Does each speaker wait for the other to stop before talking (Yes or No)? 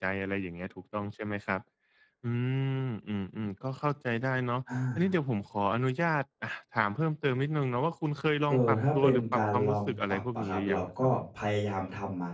No